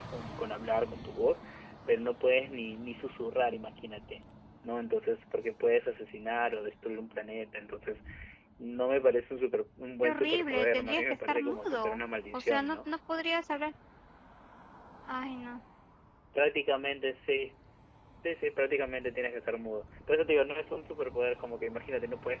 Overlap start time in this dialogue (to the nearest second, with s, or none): 10 s